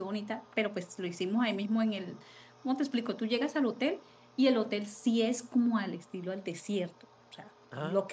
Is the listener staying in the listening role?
Yes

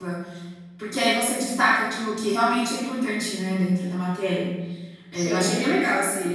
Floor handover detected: No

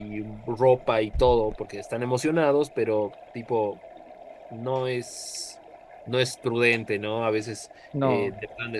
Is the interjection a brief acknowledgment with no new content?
Yes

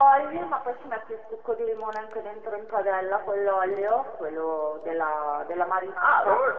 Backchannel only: No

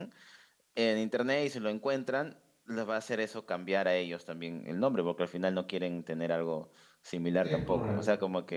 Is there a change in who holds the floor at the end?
No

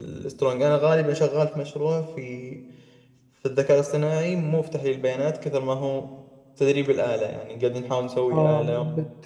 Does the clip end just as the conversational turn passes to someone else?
Yes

